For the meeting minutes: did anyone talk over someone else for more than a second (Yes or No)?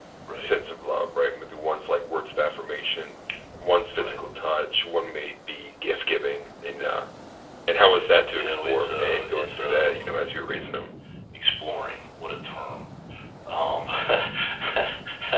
Yes